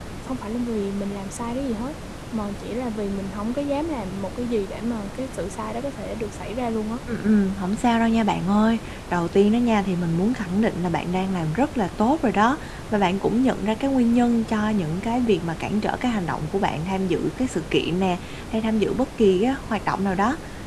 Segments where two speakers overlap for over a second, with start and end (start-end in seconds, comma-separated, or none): none